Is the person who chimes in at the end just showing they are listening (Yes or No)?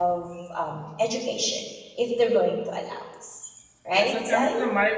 No